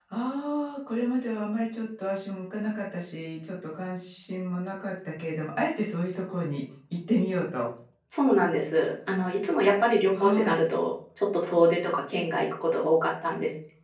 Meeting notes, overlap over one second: none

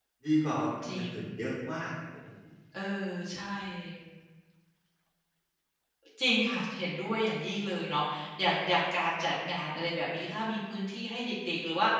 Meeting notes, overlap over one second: none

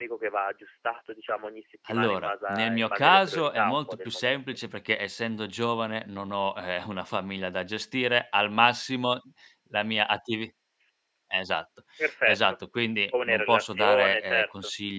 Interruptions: present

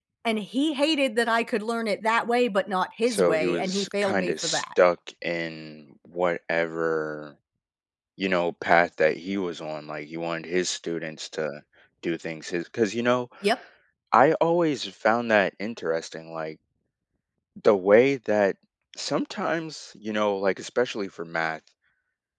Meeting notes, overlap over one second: present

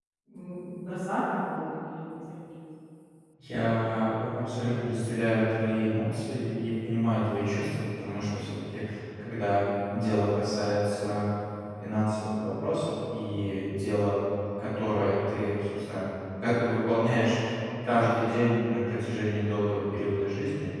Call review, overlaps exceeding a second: none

